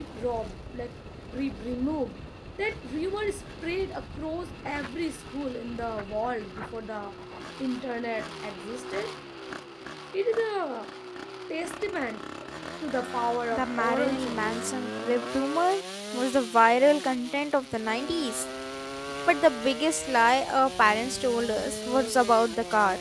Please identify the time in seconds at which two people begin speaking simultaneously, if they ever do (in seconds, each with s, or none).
13.5 s